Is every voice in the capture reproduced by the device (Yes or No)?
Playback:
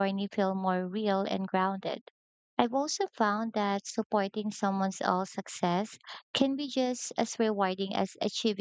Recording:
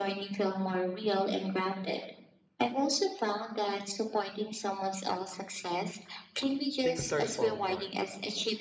No